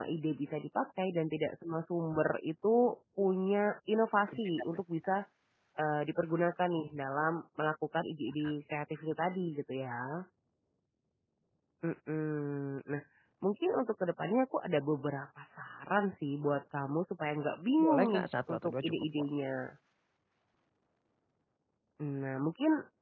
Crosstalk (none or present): present